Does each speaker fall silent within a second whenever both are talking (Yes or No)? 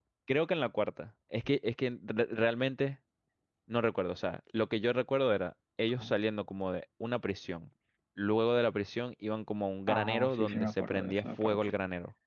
No